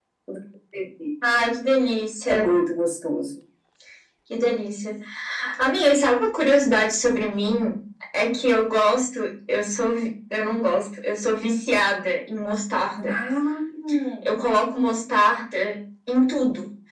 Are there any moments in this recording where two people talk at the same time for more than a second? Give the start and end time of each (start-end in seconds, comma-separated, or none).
none